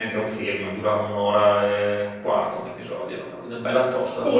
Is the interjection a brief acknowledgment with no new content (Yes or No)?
No